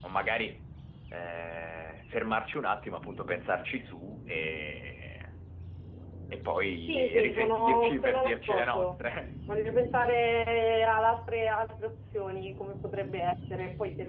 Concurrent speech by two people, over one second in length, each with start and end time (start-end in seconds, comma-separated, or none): 6.8-9.3